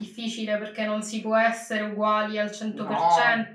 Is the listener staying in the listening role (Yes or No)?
Yes